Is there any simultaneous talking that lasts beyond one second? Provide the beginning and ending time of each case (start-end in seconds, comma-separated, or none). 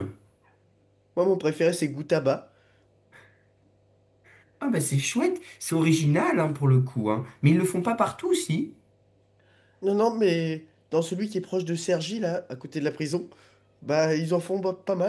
none